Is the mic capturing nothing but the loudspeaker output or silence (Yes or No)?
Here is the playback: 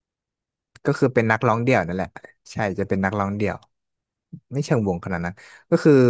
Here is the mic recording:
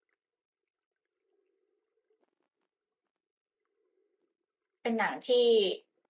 No